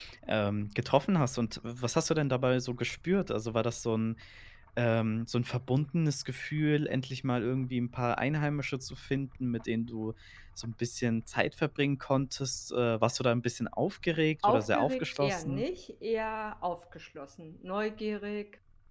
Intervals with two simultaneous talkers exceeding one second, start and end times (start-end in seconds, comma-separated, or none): 14.4-15.6